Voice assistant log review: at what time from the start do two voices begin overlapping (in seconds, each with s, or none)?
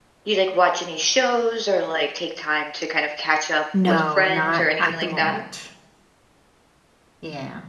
3.7 s